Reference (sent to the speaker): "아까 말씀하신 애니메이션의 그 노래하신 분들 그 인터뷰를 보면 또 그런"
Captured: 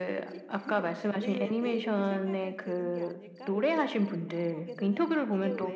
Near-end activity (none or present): present